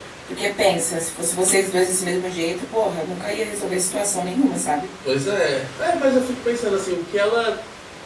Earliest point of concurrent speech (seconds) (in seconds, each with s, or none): none